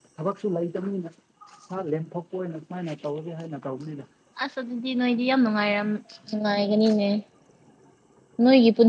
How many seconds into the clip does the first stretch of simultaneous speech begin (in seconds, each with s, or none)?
none